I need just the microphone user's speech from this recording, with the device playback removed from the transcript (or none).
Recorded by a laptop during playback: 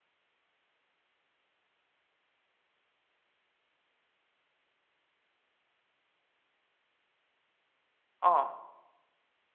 어.